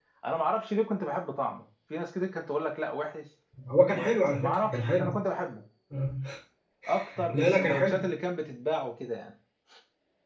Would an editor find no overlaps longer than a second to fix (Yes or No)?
No